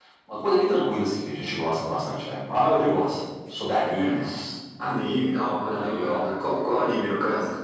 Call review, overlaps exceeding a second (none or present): none